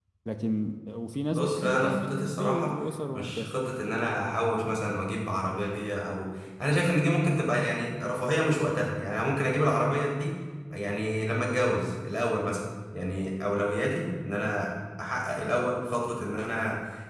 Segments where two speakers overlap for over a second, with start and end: 1.3-2.7

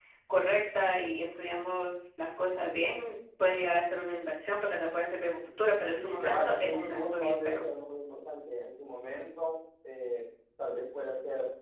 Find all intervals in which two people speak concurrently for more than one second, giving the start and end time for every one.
5.9-7.6

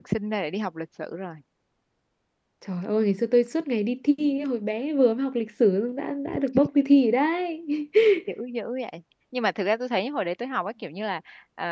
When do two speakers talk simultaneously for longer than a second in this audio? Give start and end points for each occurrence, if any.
none

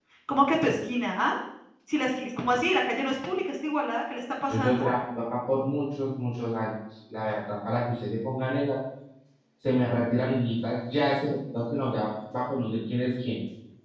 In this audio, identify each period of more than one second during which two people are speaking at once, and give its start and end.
none

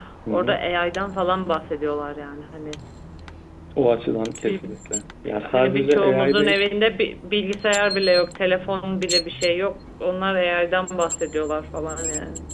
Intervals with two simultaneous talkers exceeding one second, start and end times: 5.2-6.6

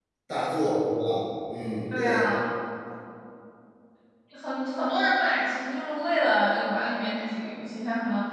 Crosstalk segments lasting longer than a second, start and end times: none

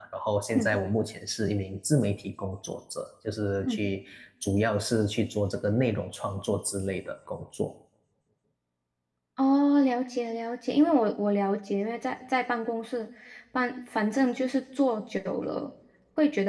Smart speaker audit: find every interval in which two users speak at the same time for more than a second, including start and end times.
none

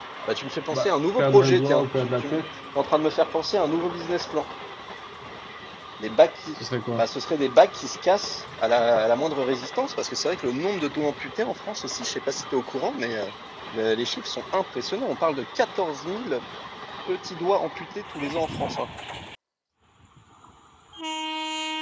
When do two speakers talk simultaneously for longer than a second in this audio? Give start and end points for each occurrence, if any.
0.7-2.4

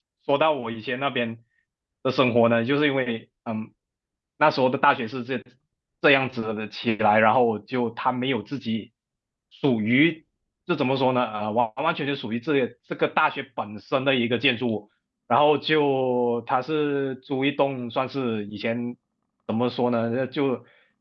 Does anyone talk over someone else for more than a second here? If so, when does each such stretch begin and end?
none

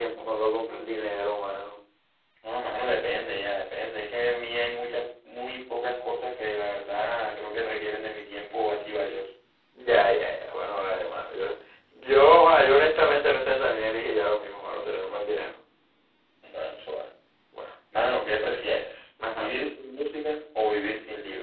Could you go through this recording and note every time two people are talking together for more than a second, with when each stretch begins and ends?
none

